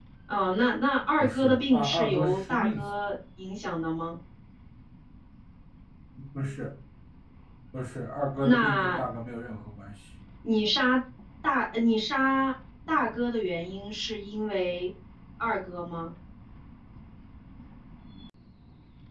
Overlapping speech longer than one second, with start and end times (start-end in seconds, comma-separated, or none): 1.2-2.9